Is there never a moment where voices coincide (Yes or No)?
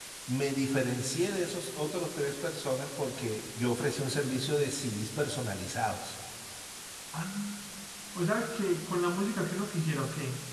Yes